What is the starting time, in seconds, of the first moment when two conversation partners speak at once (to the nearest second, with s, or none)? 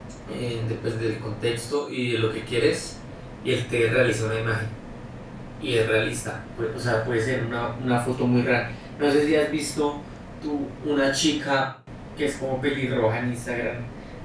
none